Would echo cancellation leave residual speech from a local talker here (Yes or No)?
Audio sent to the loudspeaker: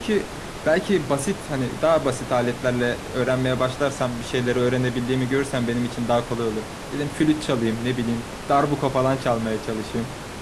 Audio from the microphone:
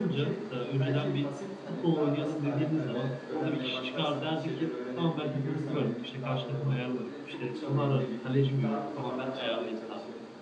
Yes